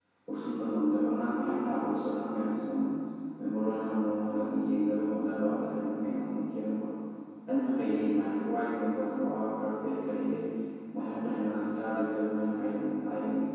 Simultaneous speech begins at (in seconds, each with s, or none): none